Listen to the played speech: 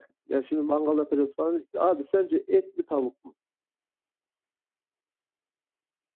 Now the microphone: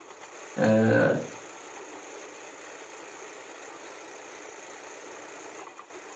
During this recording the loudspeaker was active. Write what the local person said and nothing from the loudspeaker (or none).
E,